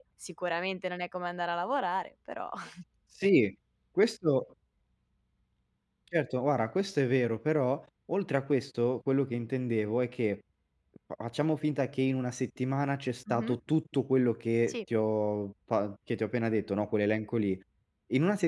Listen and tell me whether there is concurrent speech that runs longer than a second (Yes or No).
No